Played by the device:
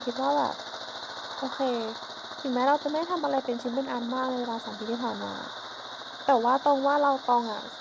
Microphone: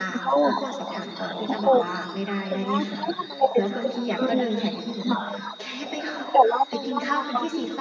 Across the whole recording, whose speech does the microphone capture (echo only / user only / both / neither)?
both